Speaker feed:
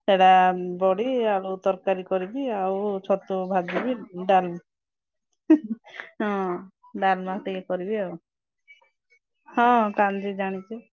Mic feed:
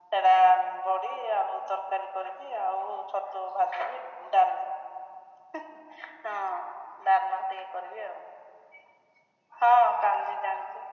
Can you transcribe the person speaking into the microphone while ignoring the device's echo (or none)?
none